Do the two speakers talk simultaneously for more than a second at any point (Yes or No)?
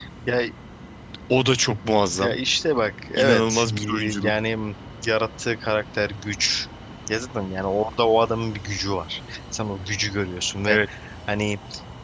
Yes